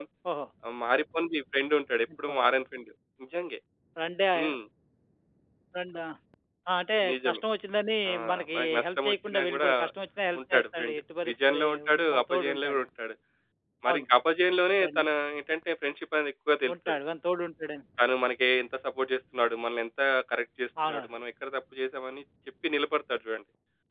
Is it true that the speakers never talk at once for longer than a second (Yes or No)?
No